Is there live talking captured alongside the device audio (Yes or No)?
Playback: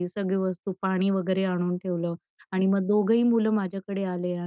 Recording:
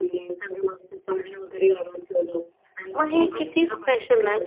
Yes